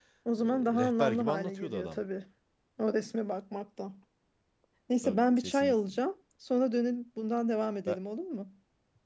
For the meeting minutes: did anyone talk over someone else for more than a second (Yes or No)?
Yes